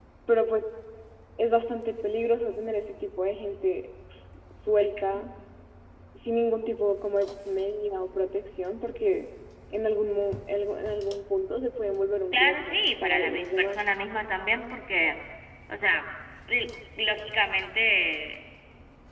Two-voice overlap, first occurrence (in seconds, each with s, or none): 12.3 s